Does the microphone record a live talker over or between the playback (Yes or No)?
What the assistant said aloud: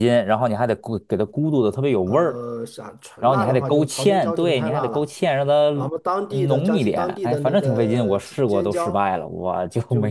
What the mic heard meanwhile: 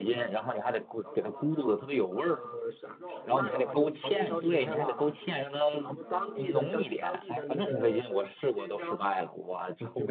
Yes